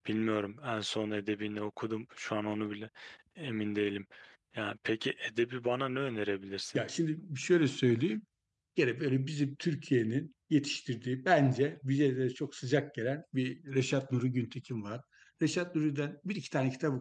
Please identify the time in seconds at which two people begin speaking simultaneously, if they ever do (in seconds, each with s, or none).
none